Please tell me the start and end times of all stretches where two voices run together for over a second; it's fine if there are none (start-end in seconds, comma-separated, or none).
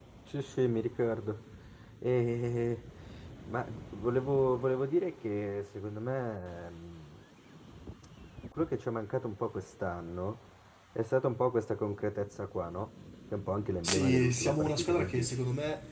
13.8-15.4